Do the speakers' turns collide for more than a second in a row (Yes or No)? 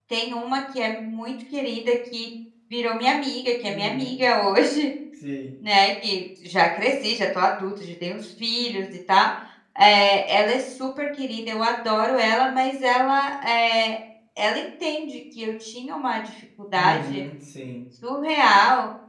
No